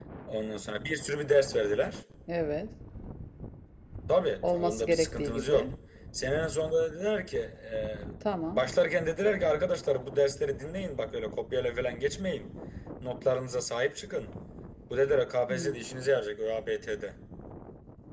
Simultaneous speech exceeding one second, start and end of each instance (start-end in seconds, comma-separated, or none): 4.4-5.7